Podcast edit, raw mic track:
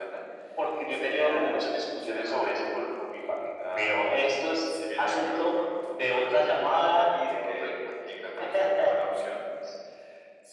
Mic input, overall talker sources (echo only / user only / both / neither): echo only